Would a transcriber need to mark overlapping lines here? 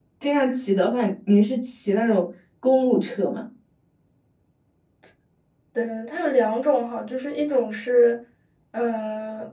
No

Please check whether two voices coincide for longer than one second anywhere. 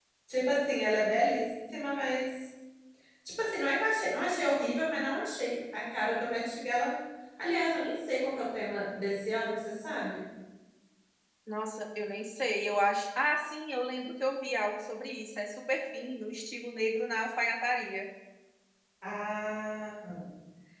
No

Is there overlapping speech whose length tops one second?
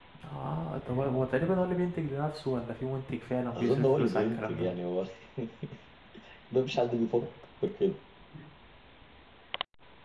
Yes, from 3.5 s

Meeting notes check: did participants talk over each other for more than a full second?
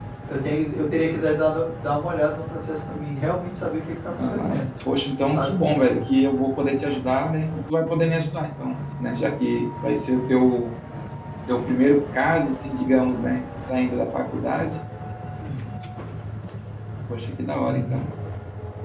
No

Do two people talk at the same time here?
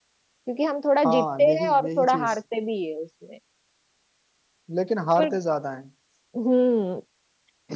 Yes, from 1.0 s

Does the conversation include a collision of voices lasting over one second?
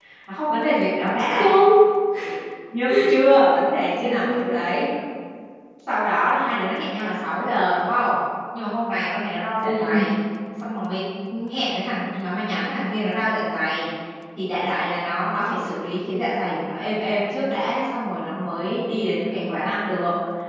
No

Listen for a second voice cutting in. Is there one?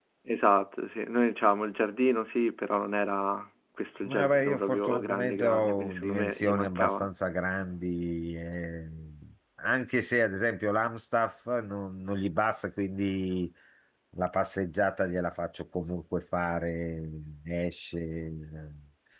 Yes, from 4.0 s

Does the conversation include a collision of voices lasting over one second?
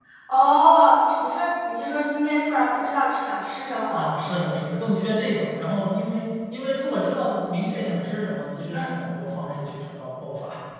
No

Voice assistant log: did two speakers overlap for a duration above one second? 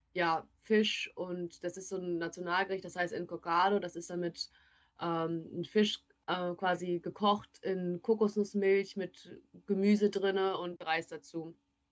No

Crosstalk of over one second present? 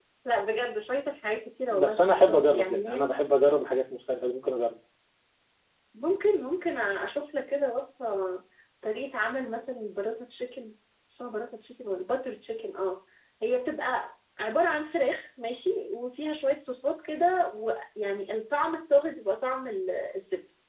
Yes, from 1.7 s

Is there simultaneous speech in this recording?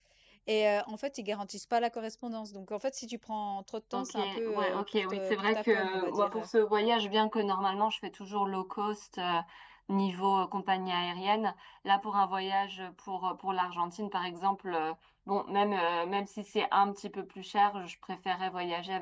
Yes, from 3.9 s

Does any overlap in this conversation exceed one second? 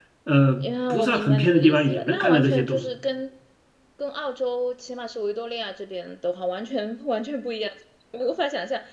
Yes, from 0.6 s

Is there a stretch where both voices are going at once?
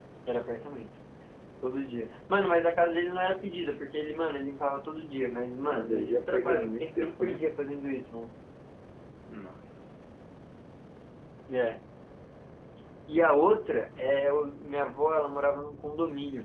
Yes, from 5.7 s

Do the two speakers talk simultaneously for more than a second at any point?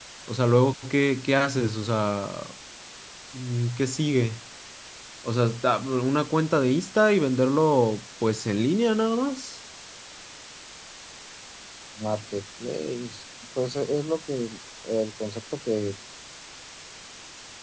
No

